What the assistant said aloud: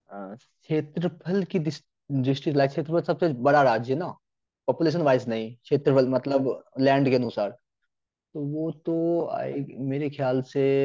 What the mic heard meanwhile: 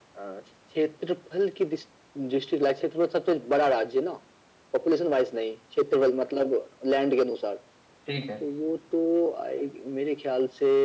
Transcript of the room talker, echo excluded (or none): ठीक है